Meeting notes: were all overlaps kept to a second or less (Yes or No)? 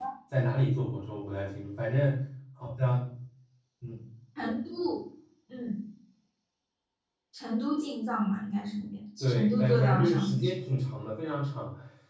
No